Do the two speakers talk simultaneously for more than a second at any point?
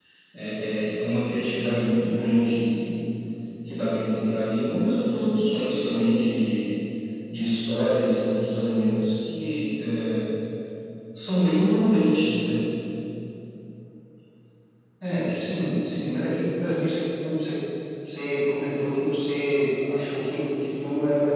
No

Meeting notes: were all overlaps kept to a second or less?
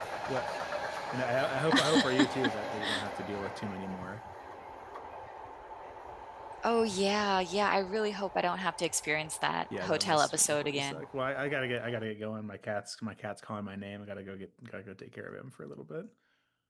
No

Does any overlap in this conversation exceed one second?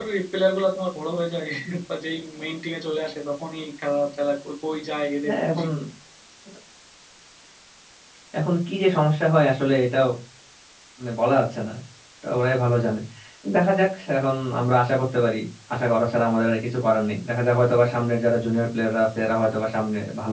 No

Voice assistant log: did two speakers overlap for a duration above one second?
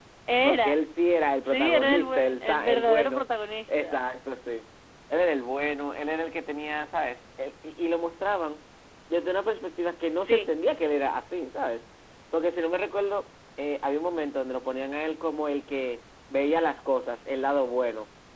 Yes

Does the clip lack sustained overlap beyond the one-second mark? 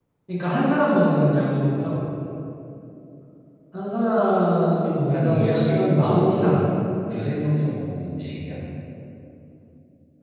No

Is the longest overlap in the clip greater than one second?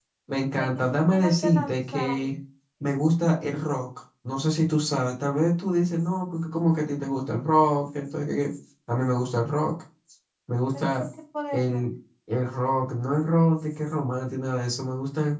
Yes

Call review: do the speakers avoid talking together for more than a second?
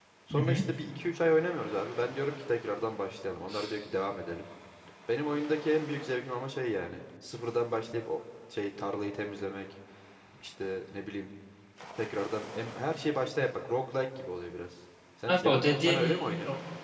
No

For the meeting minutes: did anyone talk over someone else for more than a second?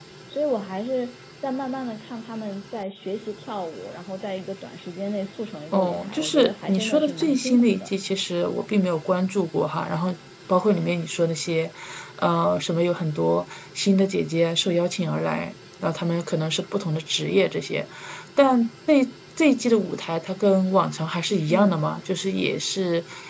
Yes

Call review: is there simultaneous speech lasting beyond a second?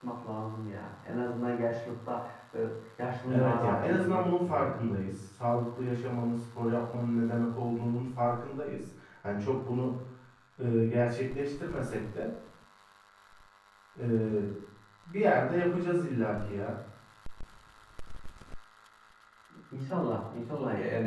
Yes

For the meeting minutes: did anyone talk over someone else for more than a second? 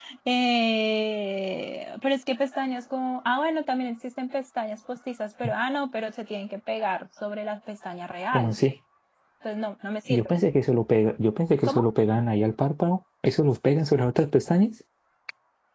No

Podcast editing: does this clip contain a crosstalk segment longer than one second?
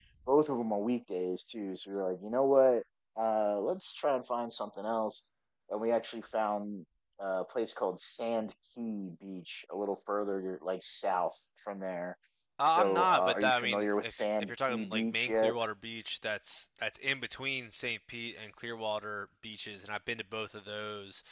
Yes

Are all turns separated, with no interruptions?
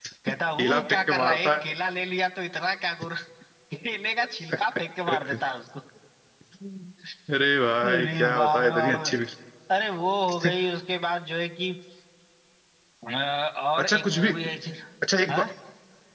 No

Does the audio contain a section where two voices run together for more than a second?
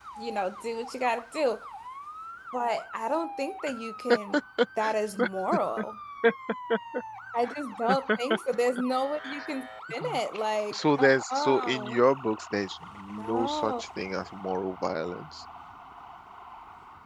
Yes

